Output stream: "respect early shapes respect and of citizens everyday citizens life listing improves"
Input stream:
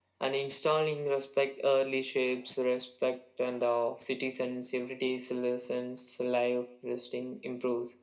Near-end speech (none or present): none